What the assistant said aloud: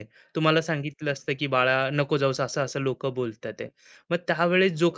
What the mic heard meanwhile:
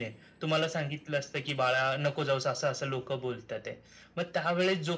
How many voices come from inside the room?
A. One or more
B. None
B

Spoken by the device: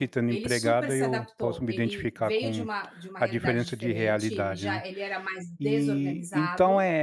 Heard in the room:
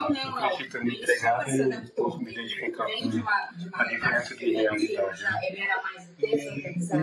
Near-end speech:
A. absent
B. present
A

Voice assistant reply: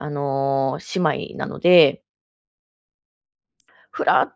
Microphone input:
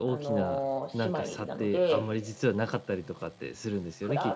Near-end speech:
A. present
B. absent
A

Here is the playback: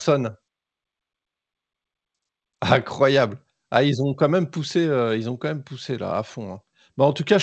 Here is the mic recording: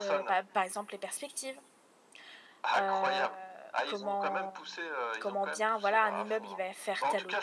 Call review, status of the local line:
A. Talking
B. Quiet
A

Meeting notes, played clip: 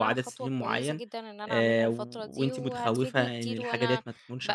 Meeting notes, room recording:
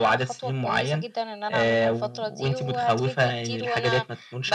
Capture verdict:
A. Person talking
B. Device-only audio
B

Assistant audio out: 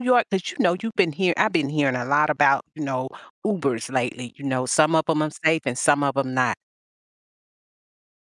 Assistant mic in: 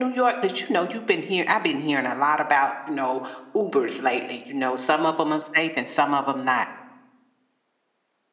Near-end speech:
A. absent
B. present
A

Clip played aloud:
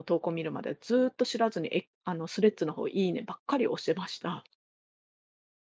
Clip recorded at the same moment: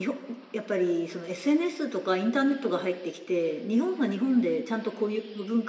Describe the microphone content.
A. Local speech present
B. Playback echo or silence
A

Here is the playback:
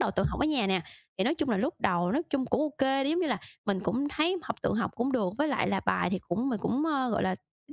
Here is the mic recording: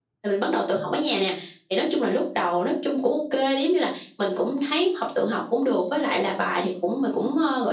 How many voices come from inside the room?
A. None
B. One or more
A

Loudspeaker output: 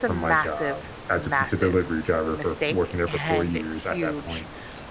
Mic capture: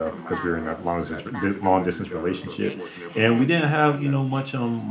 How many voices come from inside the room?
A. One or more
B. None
A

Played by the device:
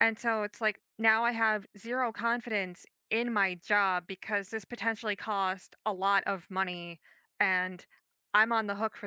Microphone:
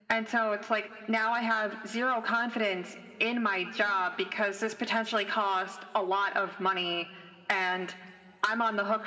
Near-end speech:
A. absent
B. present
A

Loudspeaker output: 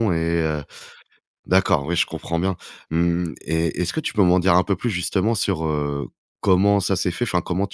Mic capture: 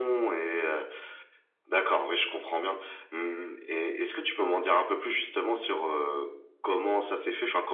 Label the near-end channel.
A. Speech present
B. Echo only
B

